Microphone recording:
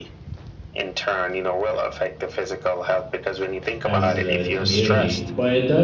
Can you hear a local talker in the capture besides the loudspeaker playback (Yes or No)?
Yes